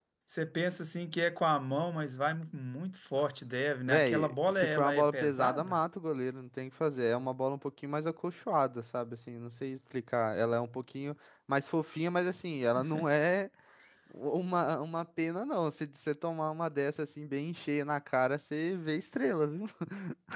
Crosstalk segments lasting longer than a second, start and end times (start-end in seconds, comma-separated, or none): 3.9-5.8